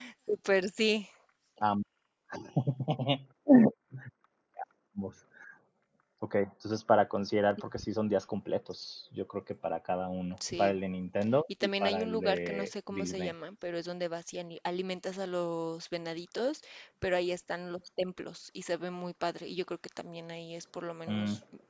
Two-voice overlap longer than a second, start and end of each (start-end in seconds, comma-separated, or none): 11.6-13.3